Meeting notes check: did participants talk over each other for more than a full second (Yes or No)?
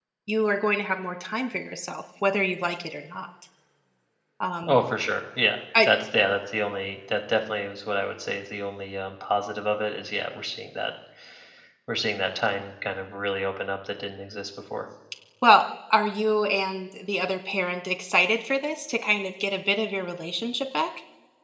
No